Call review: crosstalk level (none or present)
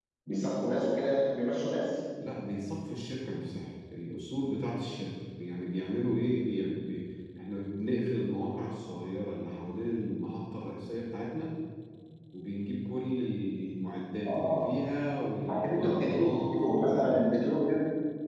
present